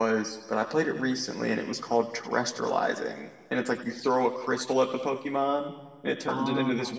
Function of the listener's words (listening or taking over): listening